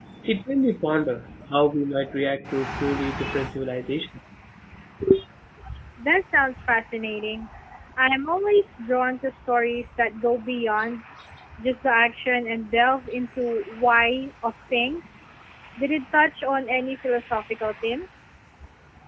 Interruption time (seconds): none

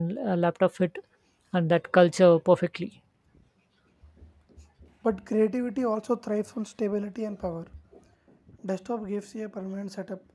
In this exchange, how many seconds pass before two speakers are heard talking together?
none

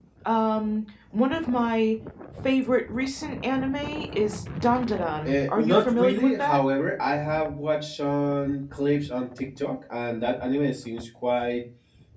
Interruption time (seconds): 5 s

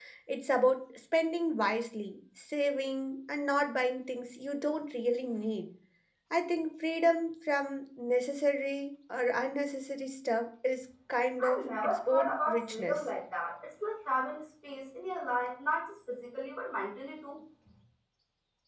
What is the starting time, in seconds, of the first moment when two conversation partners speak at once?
11 s

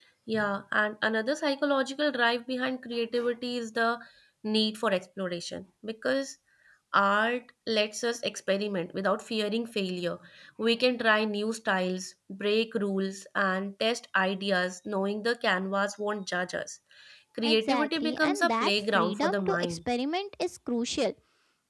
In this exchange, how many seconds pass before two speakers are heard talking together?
17 s

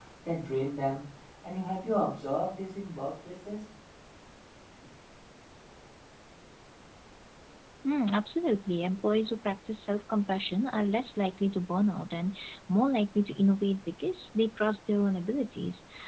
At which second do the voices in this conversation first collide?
none

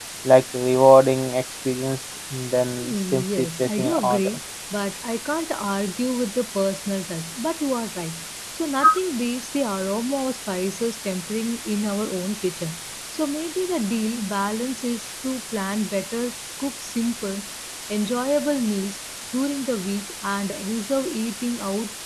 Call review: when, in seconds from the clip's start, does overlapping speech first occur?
3 s

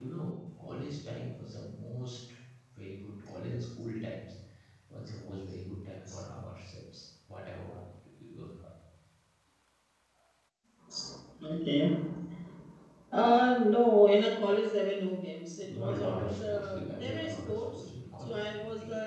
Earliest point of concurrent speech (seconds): 16 s

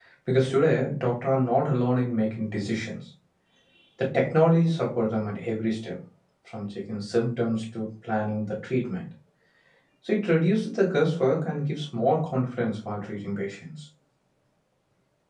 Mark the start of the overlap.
none

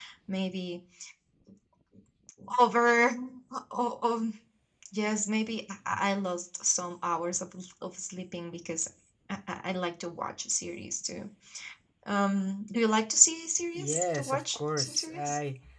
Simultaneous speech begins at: 14 s

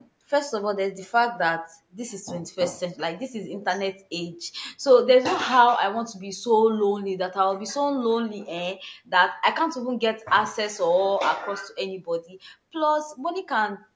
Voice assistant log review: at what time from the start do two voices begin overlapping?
none

